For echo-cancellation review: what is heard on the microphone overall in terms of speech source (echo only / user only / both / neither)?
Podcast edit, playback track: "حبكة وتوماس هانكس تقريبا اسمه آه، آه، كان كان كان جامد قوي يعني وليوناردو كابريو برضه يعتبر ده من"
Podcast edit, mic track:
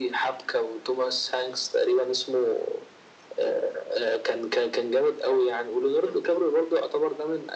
echo only